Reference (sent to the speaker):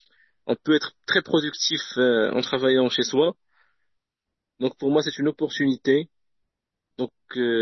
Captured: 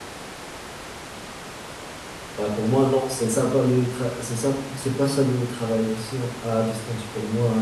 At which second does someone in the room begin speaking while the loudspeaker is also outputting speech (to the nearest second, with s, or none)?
2 s